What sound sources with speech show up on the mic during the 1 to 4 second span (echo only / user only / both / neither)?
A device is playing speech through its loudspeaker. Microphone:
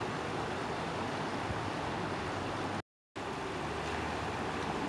neither